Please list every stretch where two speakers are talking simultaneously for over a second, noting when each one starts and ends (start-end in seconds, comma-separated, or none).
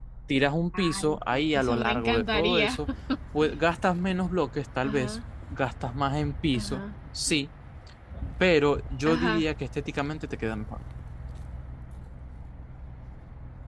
0.8-2.8